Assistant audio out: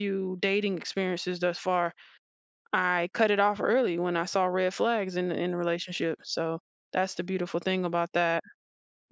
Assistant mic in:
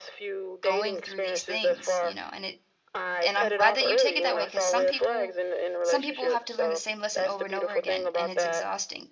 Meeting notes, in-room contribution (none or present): present